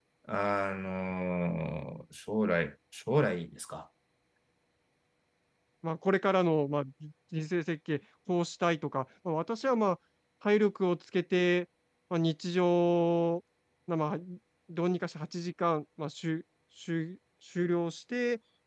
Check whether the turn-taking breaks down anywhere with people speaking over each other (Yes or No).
No